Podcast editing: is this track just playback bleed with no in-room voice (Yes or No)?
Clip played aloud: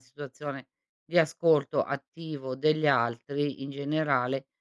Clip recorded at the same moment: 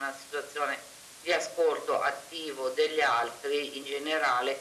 Yes